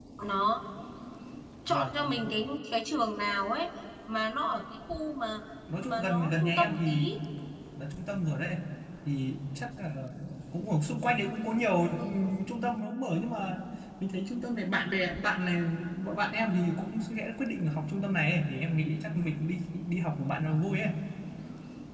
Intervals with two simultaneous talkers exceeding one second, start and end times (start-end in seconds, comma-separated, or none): 5.8-7.1